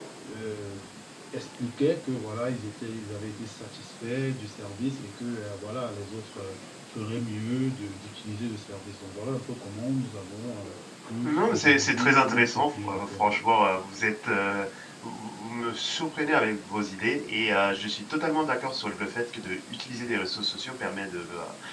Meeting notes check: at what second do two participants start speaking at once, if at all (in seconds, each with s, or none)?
11.2 s